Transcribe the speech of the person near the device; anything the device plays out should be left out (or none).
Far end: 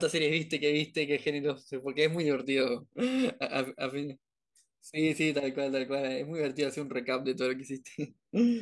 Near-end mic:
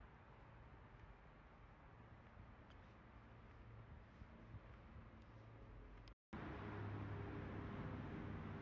none